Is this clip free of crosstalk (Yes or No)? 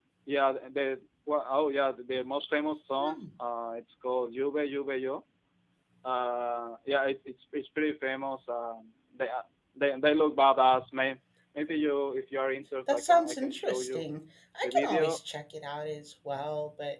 No